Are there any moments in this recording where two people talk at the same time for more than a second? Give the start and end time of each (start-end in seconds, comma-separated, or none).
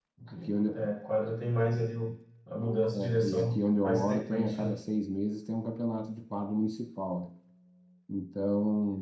2.9-4.8